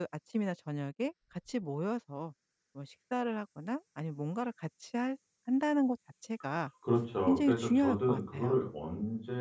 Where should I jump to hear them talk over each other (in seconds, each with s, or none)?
7.3 s